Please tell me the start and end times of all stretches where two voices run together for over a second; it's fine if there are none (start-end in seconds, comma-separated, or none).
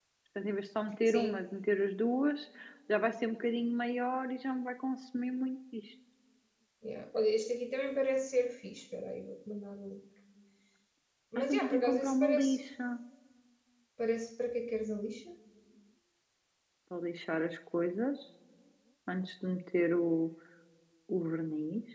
11.4-12.6